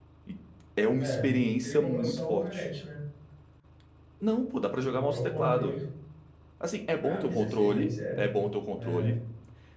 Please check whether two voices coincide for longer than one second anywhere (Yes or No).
Yes